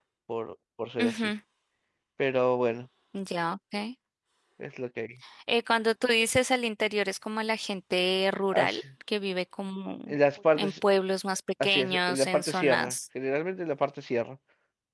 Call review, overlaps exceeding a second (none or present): present